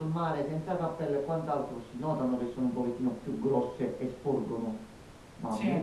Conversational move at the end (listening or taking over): listening